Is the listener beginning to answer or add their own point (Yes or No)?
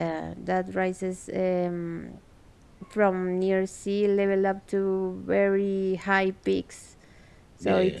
Yes